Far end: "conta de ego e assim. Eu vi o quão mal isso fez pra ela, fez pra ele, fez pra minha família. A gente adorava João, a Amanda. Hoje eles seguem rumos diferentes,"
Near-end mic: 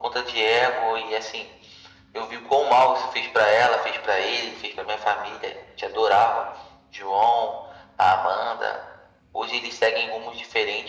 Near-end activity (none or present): none